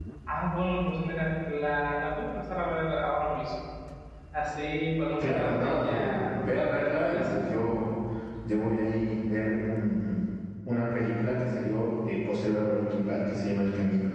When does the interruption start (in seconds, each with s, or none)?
5.2 s